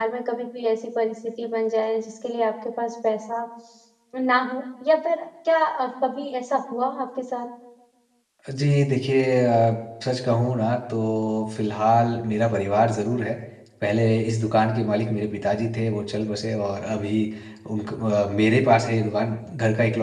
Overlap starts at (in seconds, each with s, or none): none